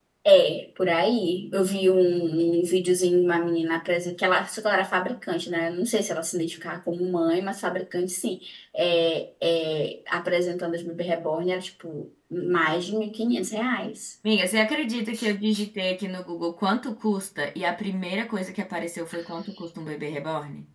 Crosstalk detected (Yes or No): No